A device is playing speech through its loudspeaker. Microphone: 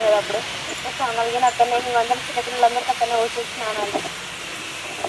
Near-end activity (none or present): none